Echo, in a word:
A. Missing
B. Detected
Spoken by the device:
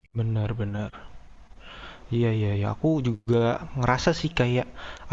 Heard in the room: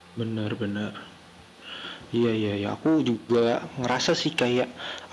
B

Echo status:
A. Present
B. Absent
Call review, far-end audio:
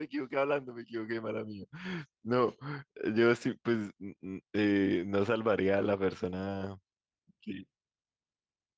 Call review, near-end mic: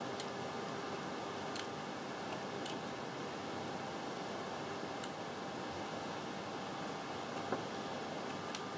B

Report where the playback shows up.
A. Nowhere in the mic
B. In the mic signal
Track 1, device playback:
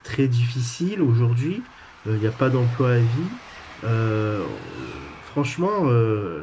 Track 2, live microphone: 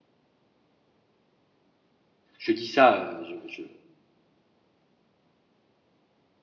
A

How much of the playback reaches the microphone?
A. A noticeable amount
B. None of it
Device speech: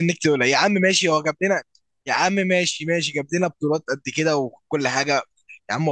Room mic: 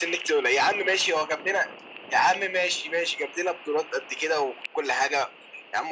A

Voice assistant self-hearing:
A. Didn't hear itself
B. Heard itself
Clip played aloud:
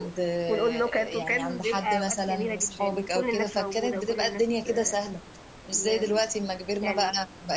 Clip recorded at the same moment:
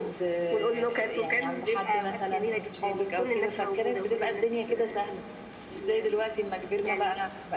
B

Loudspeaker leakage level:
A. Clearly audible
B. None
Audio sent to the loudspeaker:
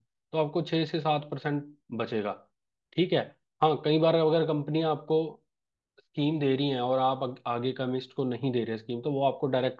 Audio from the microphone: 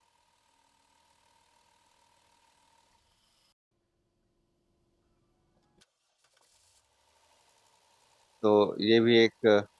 B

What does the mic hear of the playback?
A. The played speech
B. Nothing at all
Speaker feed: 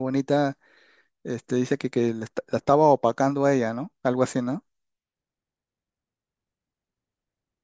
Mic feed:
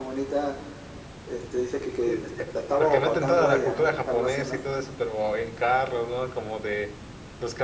A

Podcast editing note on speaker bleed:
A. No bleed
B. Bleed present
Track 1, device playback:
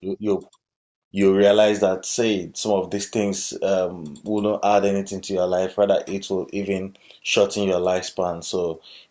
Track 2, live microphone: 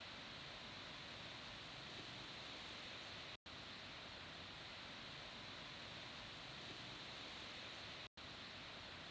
A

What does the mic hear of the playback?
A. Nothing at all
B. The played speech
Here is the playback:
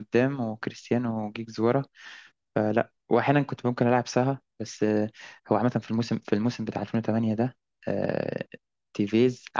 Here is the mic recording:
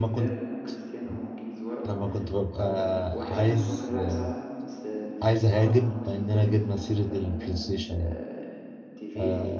B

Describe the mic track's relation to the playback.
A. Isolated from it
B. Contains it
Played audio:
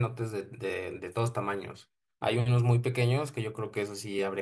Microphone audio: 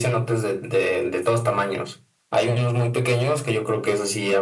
B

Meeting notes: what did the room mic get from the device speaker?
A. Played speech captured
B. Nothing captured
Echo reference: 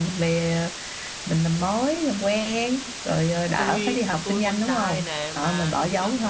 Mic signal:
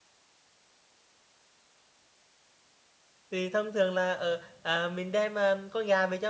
B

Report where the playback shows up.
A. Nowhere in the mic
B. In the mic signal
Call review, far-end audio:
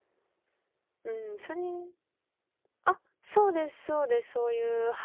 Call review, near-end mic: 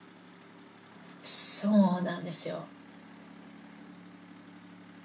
A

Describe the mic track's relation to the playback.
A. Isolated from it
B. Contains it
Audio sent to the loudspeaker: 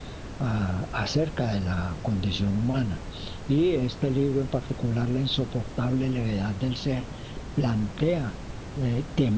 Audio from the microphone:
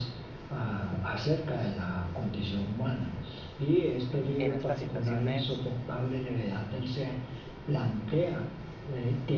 B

